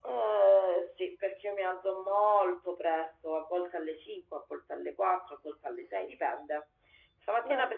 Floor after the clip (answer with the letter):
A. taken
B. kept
B